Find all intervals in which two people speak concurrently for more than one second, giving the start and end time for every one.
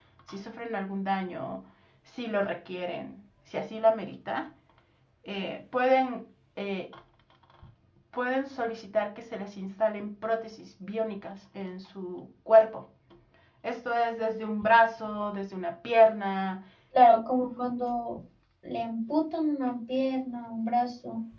none

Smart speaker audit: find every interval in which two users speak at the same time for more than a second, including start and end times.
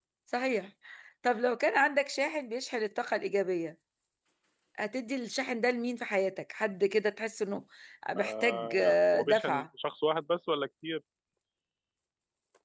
8.2-9.7

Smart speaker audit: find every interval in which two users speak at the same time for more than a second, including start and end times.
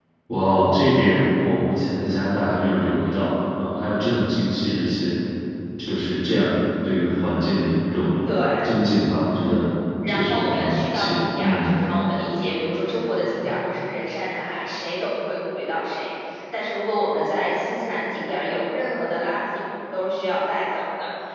10.1-11.8

